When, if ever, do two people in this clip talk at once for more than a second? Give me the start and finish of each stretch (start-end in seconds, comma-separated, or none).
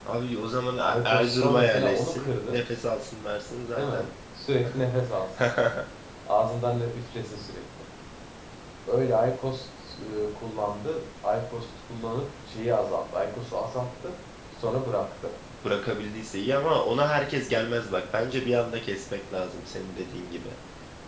0.8-2.6